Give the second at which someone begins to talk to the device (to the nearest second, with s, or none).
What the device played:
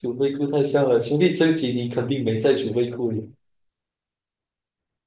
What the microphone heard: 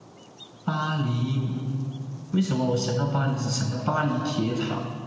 1 s